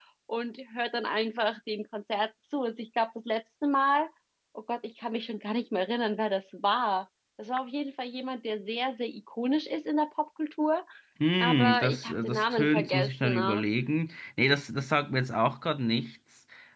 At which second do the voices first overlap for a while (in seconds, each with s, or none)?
11.4 s